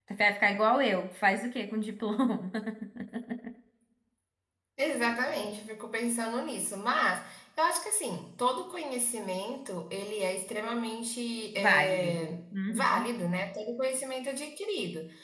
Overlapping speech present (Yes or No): Yes